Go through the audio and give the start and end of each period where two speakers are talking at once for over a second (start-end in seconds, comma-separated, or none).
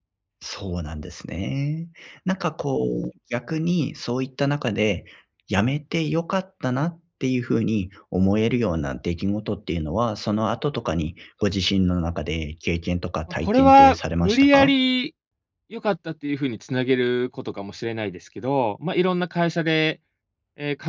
13.4-14.7